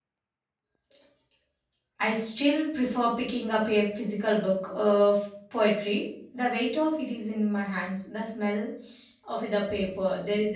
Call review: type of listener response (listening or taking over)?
listening